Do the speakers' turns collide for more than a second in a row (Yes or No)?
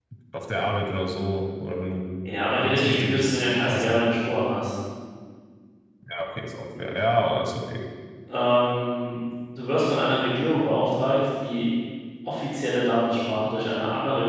Yes